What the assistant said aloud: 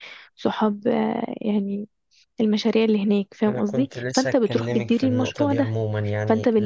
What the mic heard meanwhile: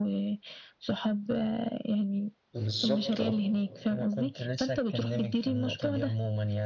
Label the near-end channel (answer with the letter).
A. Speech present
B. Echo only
A